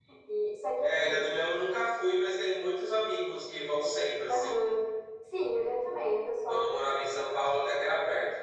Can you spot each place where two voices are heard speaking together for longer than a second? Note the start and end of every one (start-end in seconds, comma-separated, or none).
none